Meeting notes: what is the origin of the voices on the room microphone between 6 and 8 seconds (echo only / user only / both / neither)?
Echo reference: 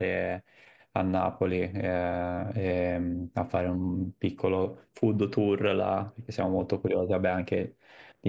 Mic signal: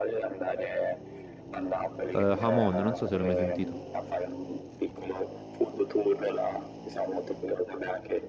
echo only